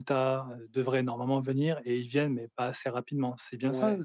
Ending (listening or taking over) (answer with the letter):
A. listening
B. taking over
B